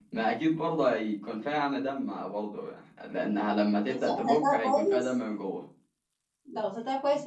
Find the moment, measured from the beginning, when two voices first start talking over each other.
3.9 s

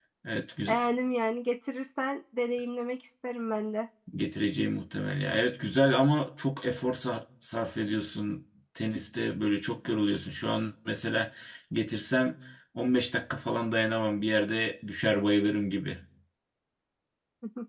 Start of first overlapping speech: none

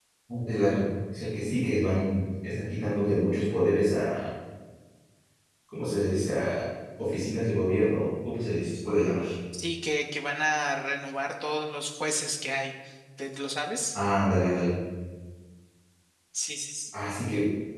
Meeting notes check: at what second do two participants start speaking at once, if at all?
none

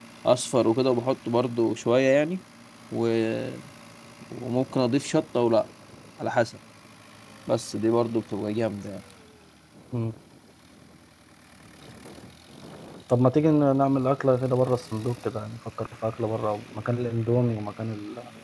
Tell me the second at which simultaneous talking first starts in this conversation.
none

